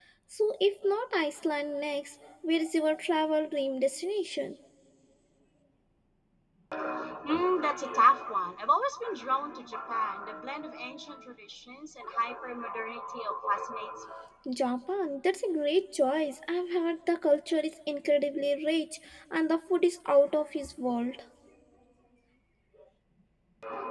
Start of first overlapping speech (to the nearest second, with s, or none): none